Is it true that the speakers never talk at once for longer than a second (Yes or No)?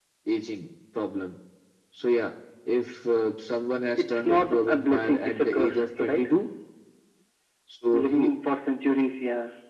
No